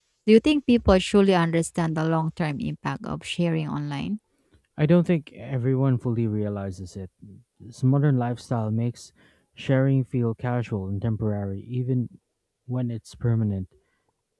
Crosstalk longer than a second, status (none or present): none